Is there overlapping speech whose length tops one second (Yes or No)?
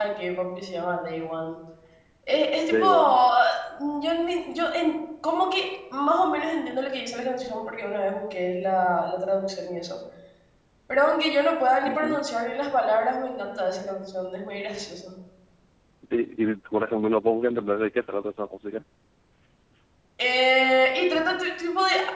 No